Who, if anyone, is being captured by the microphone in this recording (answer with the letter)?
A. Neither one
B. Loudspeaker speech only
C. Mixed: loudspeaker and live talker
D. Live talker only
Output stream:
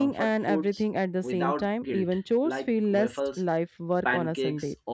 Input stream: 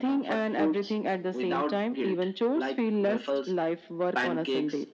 B